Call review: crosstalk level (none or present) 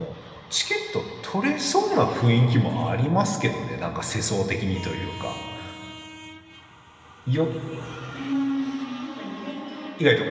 none